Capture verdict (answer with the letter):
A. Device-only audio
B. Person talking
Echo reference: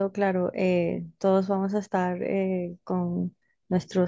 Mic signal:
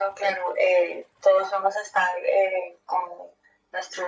A